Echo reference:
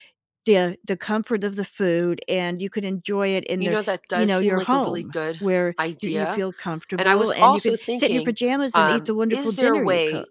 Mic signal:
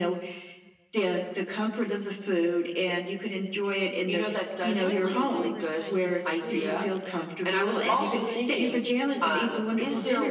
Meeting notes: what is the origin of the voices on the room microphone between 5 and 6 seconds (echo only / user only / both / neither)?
both